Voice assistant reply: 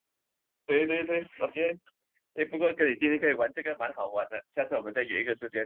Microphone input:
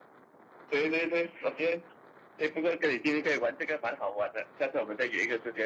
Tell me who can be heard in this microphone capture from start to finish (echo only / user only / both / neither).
echo only